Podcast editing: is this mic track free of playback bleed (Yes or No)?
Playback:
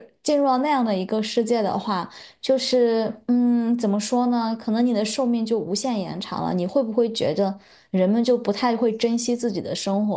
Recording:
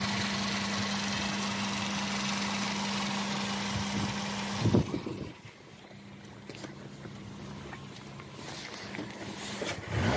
Yes